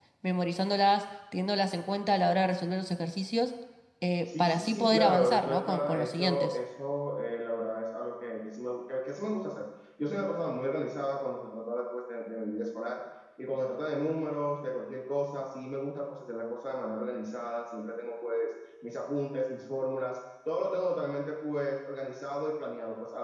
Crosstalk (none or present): present